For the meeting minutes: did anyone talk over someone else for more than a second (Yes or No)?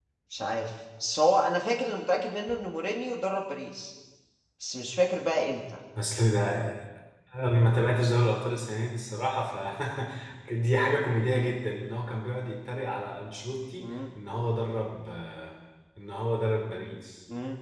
No